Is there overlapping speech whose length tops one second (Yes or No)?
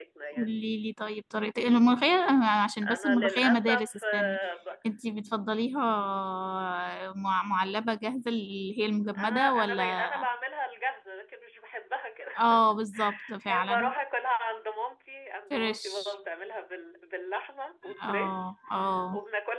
Yes